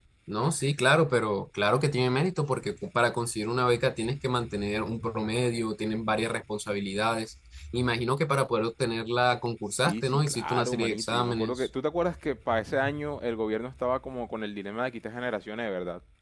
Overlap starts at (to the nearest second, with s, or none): 10 s